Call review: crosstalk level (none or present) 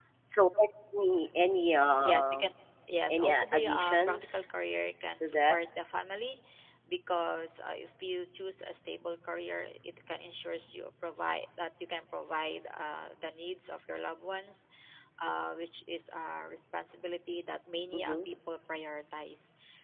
present